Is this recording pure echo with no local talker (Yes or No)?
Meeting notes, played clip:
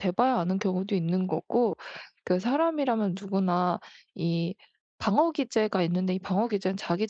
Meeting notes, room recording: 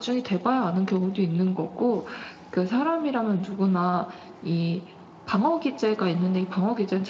Yes